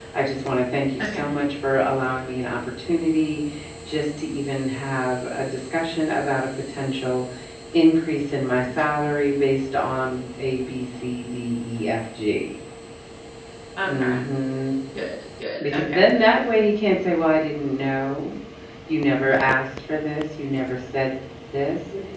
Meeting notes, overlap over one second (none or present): none